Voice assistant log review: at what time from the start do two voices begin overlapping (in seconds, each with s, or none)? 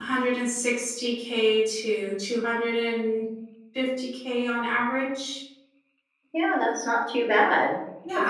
none